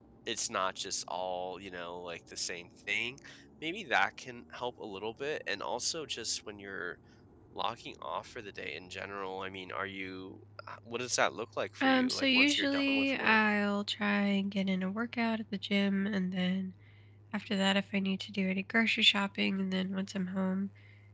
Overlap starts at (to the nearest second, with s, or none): 12 s